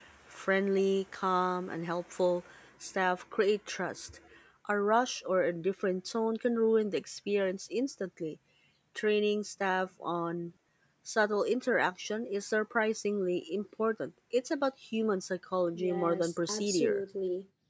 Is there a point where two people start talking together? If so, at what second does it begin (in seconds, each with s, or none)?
15.8 s